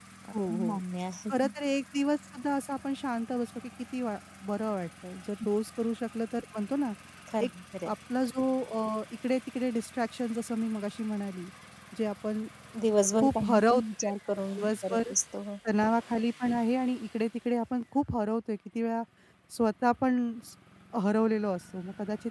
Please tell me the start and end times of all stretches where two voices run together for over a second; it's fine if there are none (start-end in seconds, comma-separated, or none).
13.2-15.1